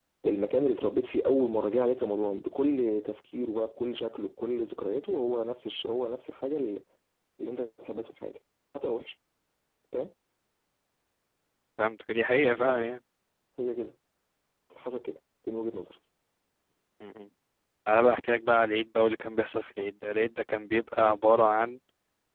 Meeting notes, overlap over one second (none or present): none